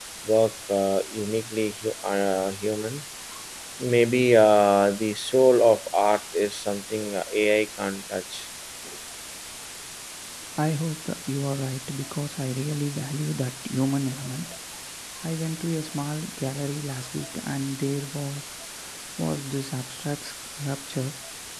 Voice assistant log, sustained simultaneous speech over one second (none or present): none